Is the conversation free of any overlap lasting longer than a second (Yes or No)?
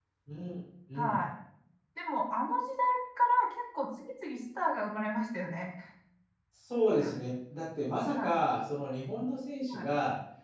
Yes